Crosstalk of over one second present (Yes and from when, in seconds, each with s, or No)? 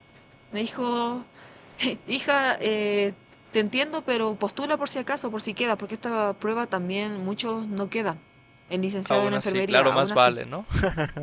Yes, from 9.1 s